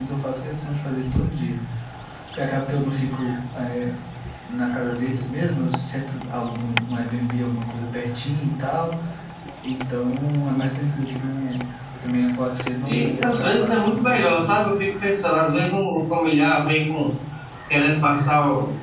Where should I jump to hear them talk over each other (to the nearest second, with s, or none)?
13 s